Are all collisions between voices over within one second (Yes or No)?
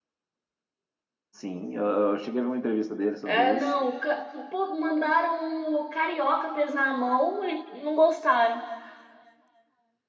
Yes